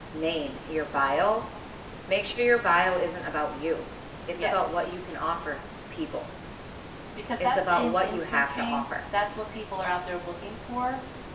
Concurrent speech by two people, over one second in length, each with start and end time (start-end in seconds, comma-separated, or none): 7.4-8.8